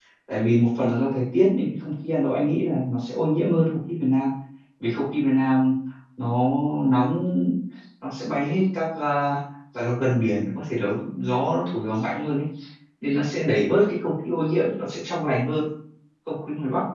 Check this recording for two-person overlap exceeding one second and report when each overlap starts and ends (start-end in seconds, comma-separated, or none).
none